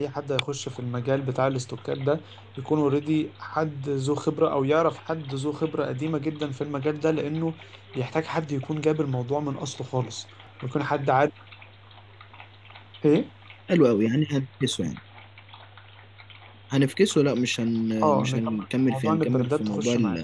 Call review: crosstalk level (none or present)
present